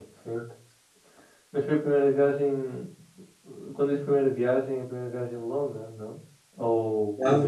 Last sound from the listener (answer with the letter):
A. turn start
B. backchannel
A